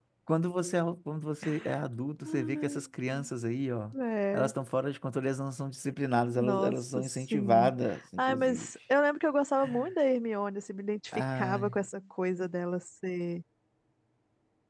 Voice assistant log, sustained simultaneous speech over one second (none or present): present